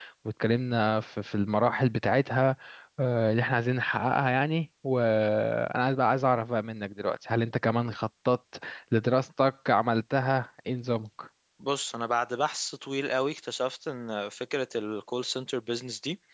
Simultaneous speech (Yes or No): No